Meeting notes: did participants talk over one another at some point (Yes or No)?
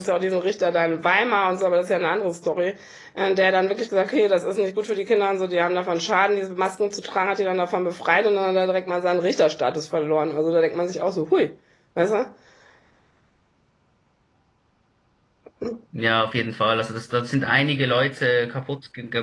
No